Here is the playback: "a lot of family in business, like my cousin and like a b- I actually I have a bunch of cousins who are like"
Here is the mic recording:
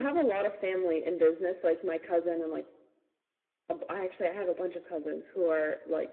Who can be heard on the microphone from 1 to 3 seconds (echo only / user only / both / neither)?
echo only